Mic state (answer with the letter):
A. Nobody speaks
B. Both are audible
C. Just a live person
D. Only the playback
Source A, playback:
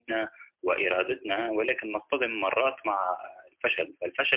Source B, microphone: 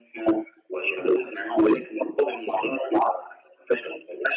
D